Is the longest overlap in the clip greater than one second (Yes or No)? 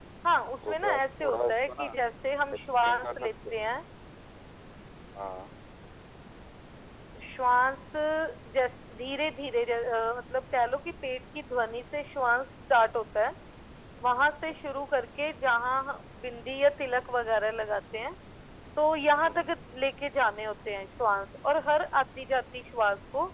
Yes